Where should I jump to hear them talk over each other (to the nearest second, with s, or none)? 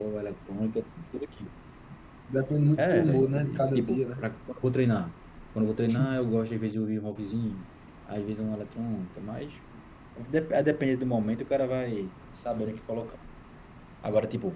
3 s